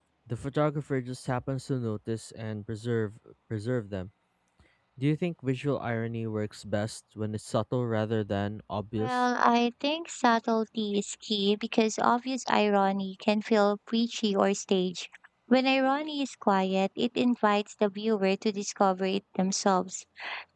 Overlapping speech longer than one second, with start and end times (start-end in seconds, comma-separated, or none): none